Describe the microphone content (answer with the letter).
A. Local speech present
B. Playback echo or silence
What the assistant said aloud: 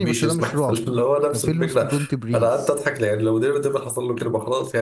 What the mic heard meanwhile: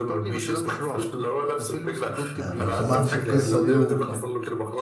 A